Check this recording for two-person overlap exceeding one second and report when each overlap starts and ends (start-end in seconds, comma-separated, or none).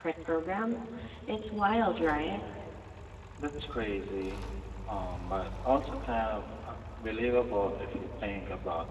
none